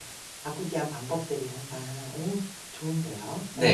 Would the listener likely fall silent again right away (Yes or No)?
No